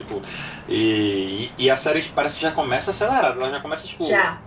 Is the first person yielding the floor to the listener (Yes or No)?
No